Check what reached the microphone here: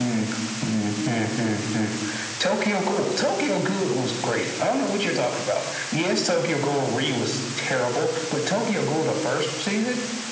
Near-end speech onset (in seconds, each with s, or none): none